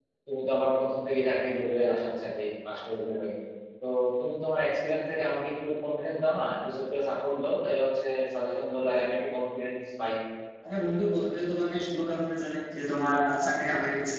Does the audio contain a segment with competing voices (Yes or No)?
No